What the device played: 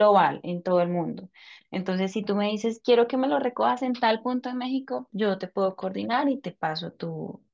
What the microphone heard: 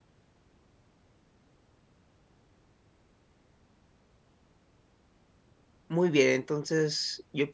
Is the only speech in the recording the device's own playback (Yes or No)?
No